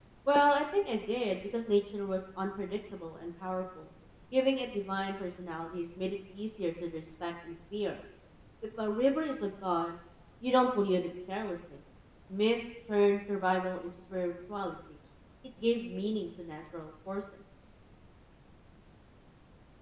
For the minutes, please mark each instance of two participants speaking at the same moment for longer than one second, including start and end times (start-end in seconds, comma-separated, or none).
none